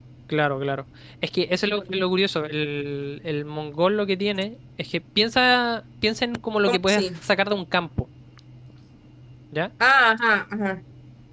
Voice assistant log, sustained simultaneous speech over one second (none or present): none